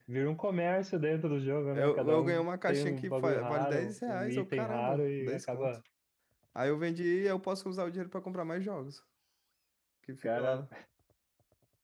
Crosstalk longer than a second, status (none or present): present